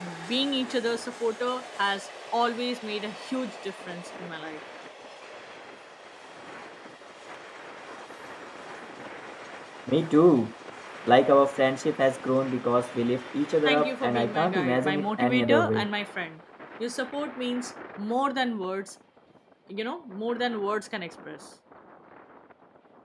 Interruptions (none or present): present